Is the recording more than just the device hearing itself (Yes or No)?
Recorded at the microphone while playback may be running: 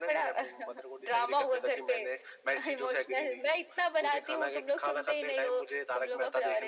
No